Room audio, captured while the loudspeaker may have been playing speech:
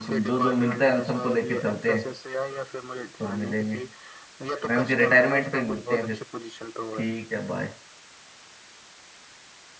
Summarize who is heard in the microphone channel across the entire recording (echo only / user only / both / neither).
both